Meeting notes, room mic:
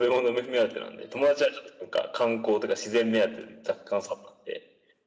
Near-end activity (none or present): none